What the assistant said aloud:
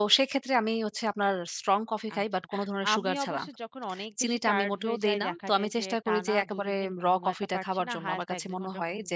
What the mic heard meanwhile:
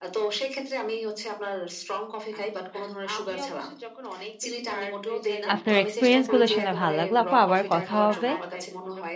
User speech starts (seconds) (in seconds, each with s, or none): 5.5 s